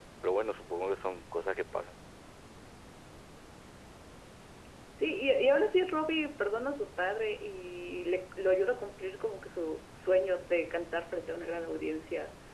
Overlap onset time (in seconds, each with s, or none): none